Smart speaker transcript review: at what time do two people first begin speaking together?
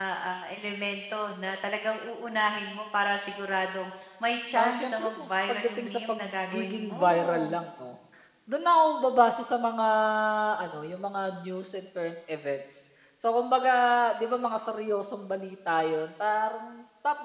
4.5 s

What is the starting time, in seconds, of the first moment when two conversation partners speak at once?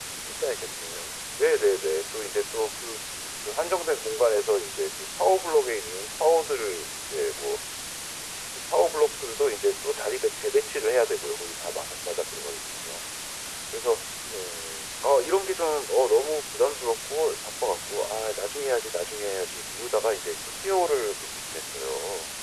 none

